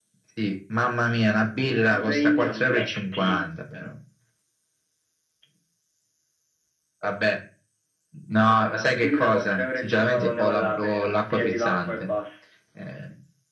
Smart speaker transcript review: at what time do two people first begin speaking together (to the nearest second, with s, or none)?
2 s